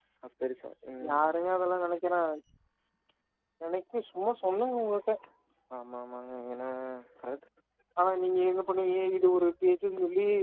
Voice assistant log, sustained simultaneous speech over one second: none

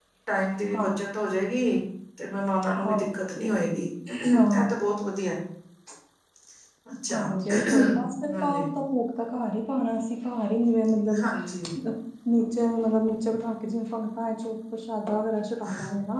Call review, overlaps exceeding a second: none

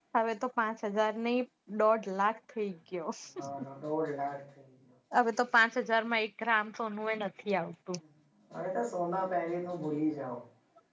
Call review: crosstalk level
none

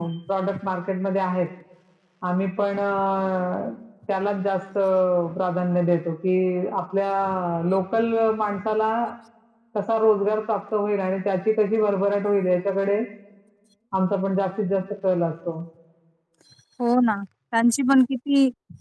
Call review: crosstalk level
none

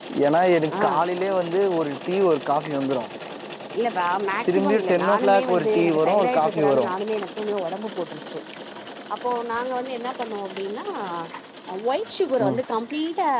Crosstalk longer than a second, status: present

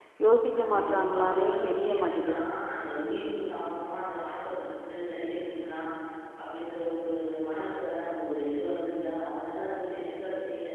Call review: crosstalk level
present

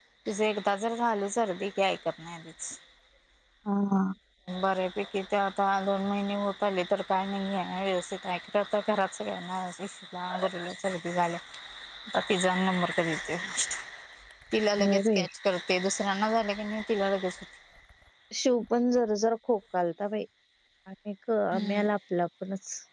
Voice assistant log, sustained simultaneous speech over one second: none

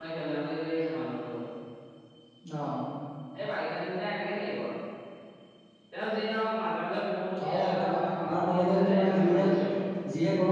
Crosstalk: present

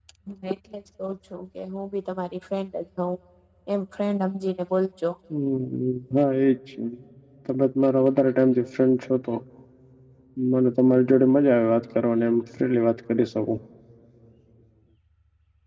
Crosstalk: none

